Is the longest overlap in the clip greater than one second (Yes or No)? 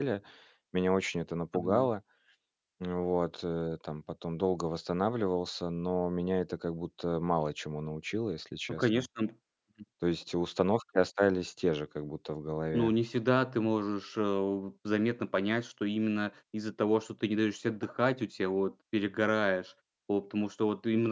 No